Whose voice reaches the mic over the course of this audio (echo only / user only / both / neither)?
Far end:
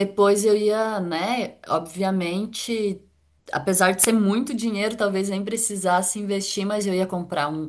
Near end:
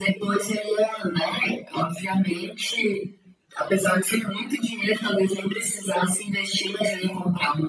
echo only